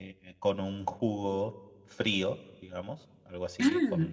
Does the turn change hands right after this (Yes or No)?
No